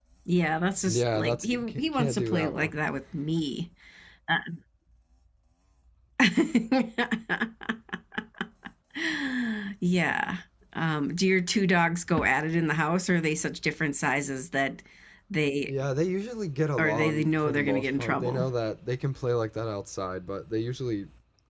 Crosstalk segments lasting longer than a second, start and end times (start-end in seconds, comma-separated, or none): 0.9-2.8, 16.8-18.4